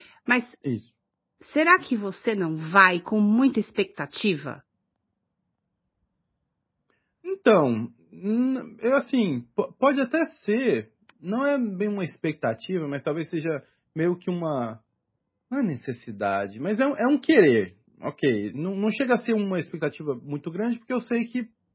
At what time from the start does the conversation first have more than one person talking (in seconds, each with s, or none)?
none